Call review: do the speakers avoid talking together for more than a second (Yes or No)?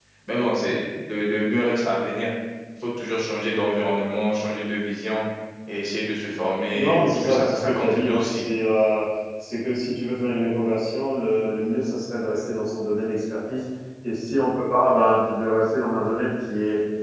No